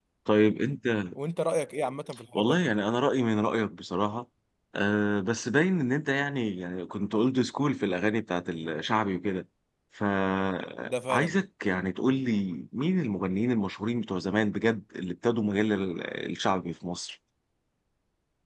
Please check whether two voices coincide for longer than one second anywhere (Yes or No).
No